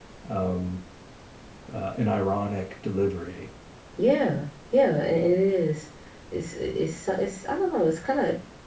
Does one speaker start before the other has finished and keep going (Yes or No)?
No